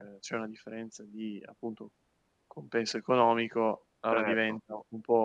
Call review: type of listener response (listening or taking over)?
listening